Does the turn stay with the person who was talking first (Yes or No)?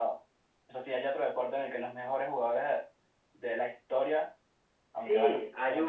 No